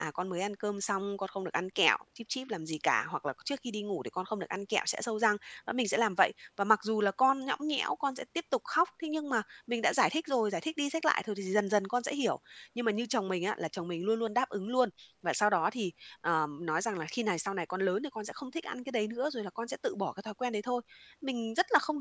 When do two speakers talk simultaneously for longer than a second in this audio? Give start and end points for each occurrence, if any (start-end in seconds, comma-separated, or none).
none